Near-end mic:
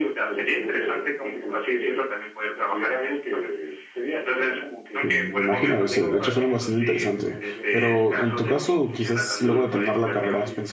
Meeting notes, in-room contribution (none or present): present